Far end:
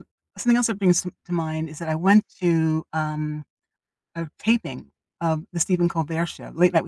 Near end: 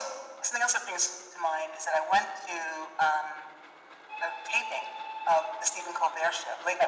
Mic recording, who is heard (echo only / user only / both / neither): echo only